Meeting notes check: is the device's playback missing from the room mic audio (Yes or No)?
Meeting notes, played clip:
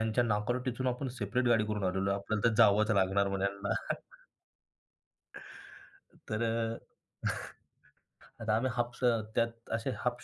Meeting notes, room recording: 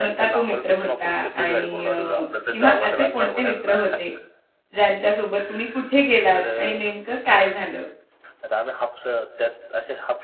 No